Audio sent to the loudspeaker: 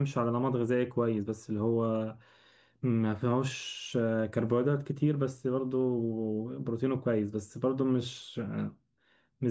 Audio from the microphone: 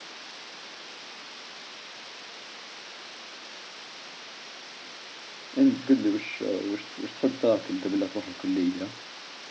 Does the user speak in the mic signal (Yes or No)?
Yes